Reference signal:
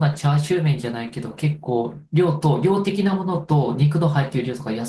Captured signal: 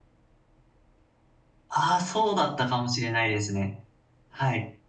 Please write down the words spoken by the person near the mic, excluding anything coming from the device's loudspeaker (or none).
ああ、そうだったかもしれないですね。はい。